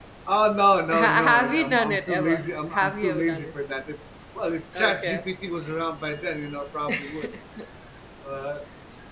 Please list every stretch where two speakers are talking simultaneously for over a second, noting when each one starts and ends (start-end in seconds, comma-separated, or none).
0.9-3.5